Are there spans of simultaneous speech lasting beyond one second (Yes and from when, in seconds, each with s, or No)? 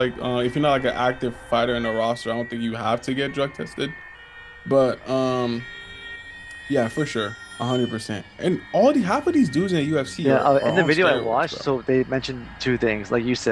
Yes, from 10.2 s